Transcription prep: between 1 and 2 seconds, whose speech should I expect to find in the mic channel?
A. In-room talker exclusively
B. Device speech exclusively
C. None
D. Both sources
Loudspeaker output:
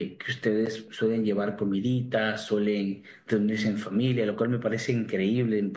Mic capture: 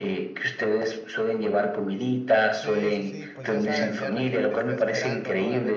B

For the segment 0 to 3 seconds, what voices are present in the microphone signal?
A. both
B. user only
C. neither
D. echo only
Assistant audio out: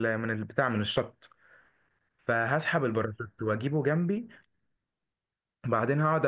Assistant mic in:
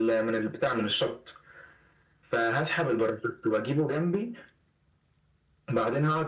D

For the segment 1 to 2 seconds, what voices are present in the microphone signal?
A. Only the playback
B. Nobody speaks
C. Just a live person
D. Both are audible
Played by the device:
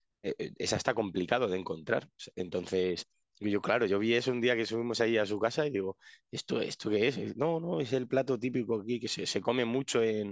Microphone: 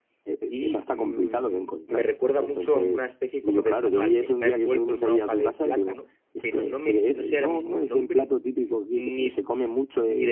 D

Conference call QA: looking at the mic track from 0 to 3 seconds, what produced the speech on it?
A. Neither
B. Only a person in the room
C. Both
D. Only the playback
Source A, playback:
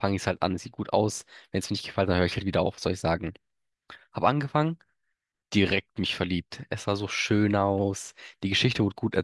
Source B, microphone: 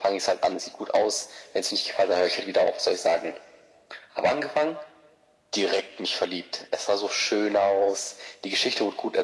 D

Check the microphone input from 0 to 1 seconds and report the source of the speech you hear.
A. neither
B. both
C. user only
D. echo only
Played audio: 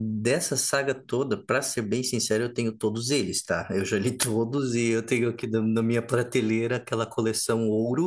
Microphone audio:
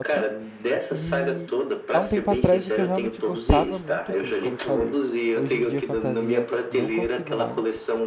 B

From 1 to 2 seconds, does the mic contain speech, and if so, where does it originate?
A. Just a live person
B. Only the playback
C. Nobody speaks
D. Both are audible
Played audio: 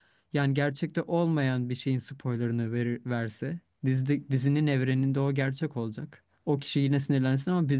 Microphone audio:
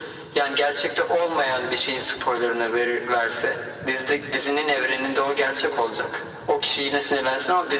B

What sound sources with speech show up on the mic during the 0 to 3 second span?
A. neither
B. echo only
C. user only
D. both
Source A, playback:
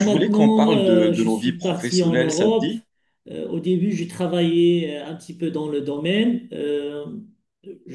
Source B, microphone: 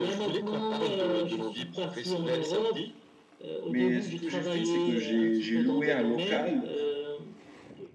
B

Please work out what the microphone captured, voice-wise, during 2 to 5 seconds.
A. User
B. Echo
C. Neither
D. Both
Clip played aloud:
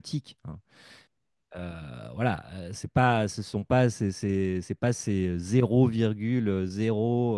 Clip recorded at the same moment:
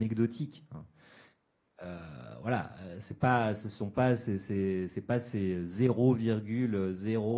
B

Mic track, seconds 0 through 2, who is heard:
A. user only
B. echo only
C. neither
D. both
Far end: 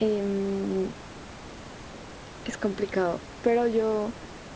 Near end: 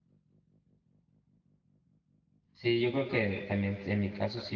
C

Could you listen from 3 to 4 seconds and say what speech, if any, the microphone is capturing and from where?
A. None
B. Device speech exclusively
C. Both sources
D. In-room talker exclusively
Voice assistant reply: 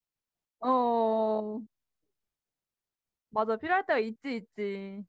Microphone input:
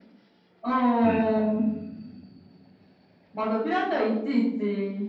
B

